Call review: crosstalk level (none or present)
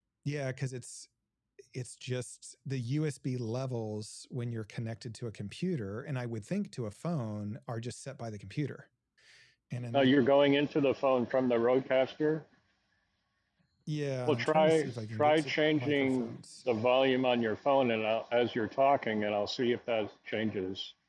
present